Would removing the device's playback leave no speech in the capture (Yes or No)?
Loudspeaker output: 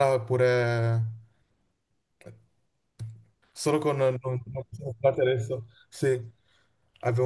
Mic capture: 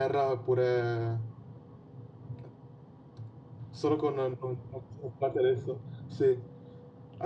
Yes